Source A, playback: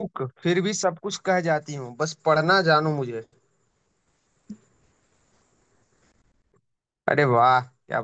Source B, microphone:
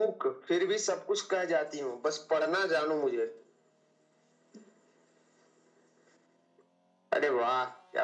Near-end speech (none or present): none